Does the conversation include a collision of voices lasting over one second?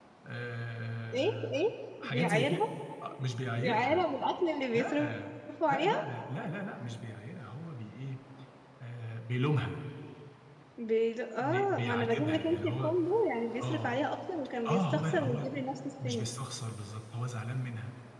Yes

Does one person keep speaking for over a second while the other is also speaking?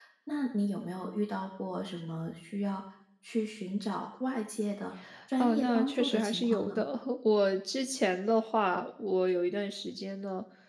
Yes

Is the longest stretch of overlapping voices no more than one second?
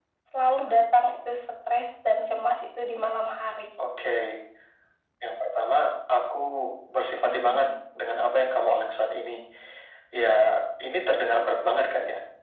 Yes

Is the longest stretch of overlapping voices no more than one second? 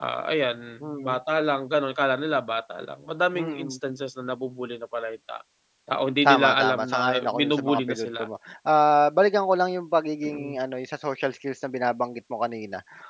No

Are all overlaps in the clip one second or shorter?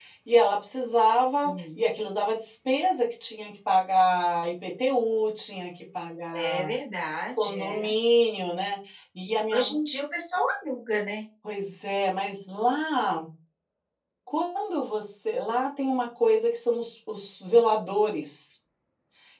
Yes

